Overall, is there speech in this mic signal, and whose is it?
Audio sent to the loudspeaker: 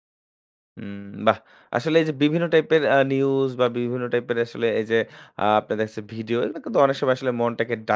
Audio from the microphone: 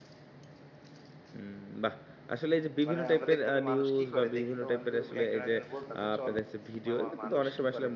both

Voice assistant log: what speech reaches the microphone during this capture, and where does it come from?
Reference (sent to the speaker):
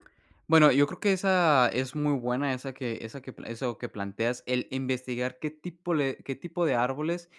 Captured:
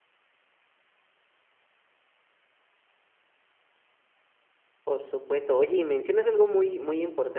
user only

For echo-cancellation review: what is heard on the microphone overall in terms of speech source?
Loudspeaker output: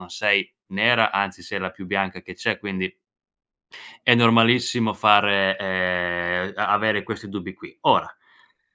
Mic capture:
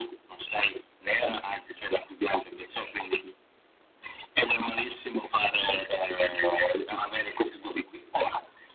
echo only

